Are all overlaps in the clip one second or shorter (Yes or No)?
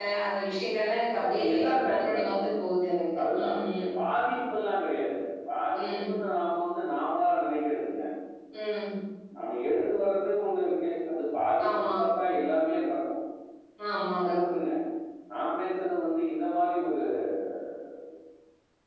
No